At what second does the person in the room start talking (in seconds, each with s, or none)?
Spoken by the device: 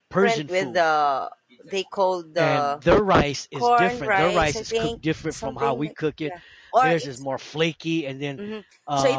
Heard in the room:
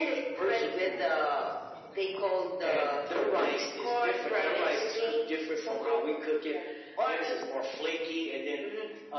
none